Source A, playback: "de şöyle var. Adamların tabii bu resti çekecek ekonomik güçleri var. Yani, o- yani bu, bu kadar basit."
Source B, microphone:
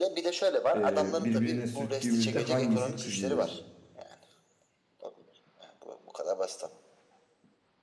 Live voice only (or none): e, birbirine sürttüğümüzde hangisi çizilir?